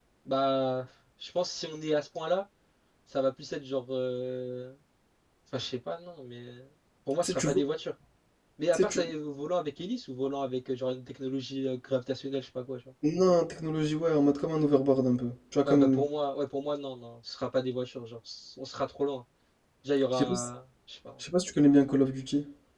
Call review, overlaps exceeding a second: none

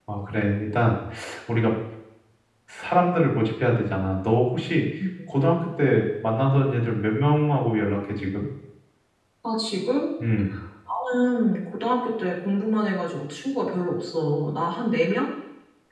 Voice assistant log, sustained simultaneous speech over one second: none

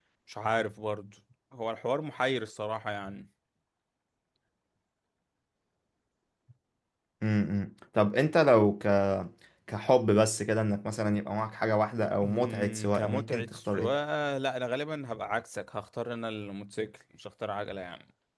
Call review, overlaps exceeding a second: present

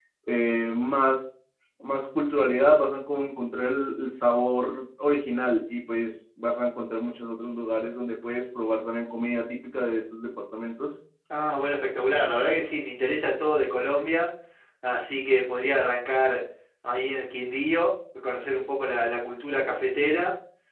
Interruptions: none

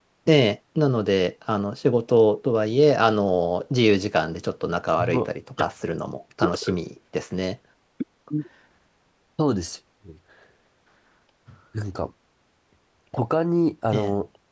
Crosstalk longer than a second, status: none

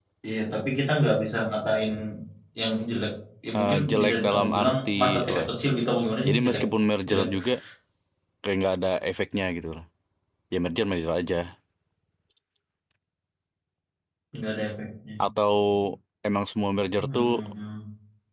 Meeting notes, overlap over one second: present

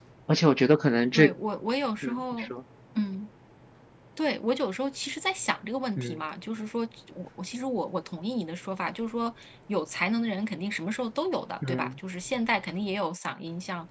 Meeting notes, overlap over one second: none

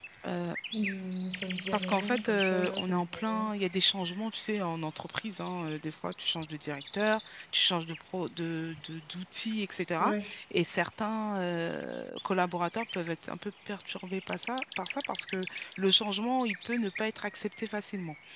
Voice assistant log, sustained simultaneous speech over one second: present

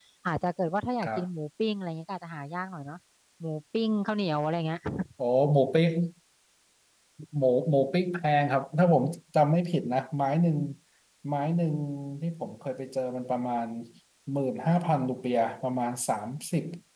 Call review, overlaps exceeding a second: none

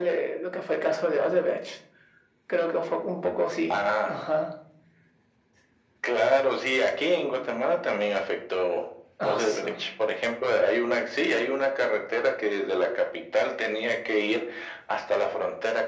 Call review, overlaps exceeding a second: none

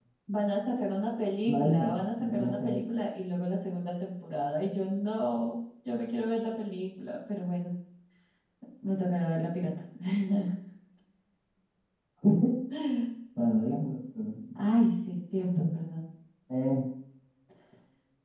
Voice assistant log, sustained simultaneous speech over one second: present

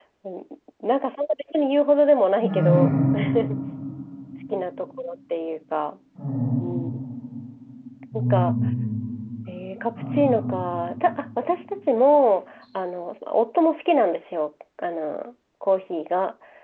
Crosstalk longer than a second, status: none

